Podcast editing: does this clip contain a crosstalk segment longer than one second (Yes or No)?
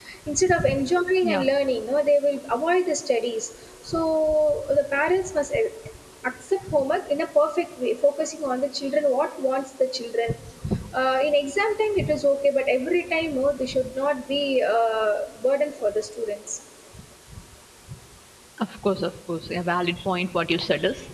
No